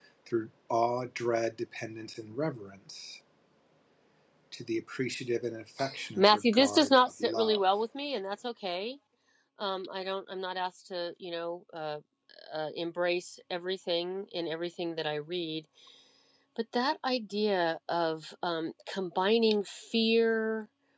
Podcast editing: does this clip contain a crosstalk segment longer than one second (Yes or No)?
Yes